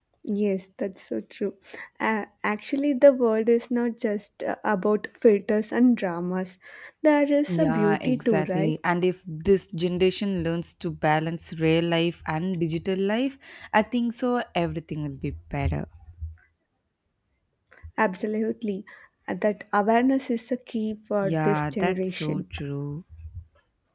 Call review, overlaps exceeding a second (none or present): present